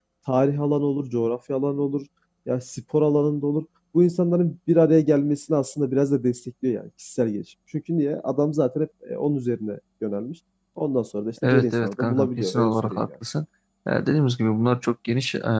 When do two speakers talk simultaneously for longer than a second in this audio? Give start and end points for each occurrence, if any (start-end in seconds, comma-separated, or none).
11.4-13.1